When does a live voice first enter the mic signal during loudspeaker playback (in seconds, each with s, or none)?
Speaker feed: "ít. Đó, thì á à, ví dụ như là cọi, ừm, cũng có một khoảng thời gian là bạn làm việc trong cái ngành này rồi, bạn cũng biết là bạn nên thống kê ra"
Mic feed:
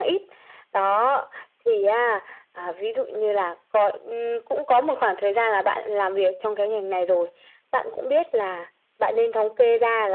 none